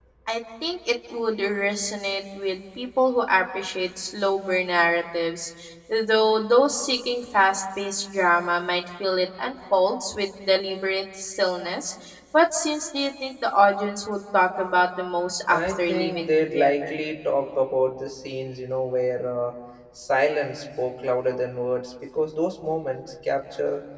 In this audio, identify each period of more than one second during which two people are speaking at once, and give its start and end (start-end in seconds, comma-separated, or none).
15.5-16.9